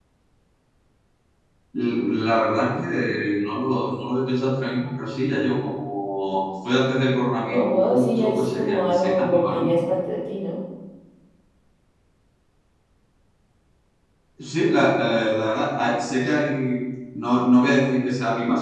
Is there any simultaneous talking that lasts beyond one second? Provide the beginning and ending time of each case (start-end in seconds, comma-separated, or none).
7.5-9.8